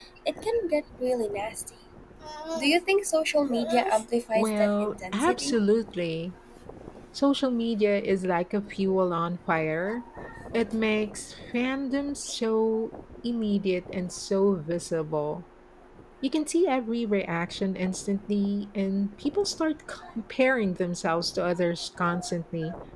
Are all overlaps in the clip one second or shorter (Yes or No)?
No